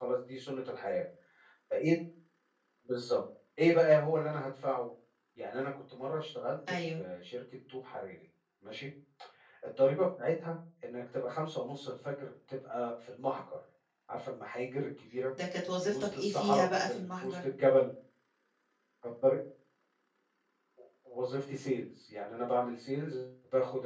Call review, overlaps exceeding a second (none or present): present